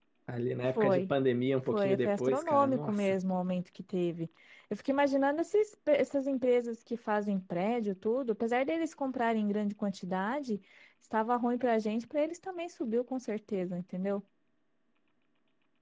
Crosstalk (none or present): present